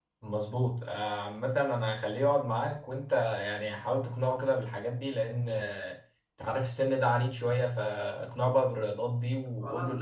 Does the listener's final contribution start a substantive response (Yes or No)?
Yes